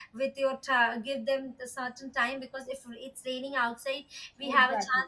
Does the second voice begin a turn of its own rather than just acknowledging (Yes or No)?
No